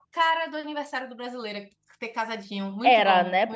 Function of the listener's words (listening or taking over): taking over